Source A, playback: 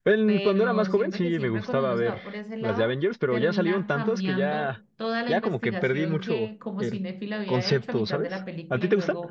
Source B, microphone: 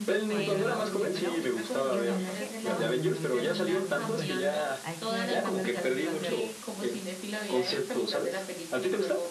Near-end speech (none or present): present